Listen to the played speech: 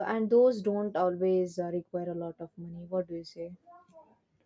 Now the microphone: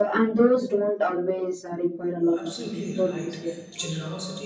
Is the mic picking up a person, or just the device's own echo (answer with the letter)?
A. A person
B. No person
A